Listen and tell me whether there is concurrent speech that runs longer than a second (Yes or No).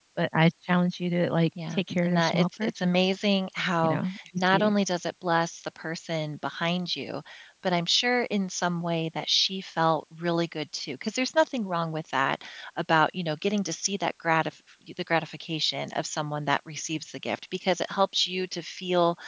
Yes